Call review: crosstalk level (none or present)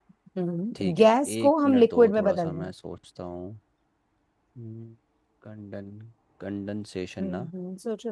present